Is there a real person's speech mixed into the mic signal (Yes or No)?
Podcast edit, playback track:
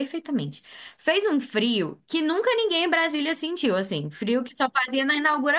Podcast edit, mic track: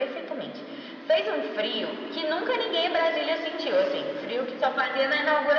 No